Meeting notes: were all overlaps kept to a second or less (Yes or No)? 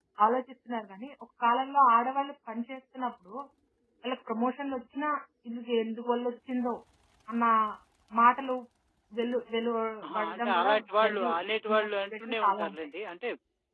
No